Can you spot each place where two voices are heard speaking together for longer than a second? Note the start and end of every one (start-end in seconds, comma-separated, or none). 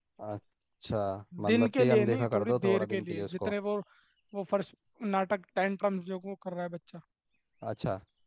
1.4-3.5